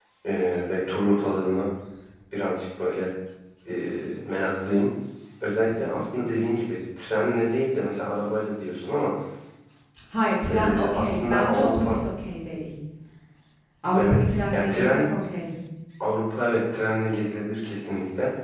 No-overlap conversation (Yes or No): No